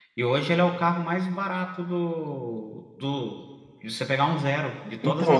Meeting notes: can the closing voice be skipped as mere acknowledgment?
No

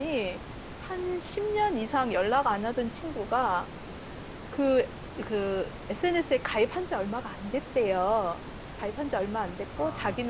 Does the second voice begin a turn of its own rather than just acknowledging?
No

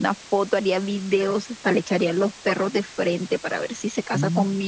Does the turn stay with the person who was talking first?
No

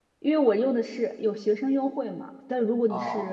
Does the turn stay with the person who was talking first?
Yes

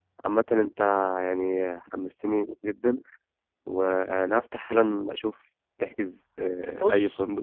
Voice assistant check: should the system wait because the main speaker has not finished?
No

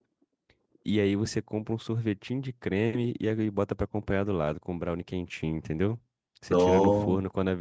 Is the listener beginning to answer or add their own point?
No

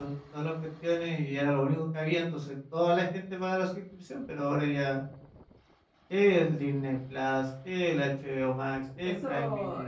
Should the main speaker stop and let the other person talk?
Yes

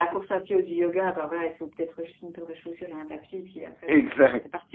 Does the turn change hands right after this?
Yes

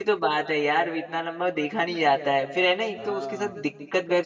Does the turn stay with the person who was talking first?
Yes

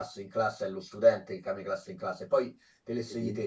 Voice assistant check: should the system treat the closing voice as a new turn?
No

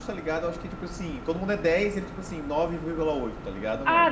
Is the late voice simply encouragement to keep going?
No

